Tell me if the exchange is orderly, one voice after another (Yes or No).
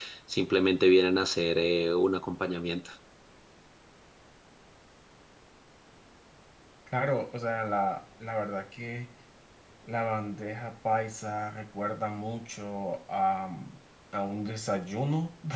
Yes